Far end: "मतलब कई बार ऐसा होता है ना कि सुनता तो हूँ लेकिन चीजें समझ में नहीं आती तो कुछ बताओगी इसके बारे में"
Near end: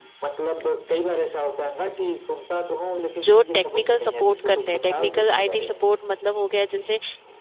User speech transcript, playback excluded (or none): जो टेक्निकल सपोर्ट करते हैं टेक्निकल आईटी सपोर्ट मतलब हो गया जैसे